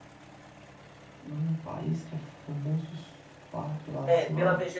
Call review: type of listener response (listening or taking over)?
taking over